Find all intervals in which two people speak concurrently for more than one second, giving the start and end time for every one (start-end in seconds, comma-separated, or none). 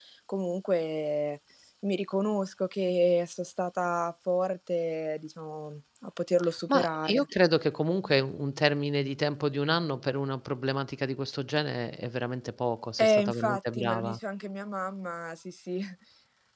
13.0-14.2